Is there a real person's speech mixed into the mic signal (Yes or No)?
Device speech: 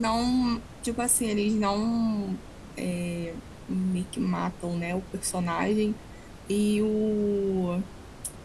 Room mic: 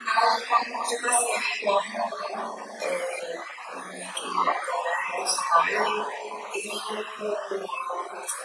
No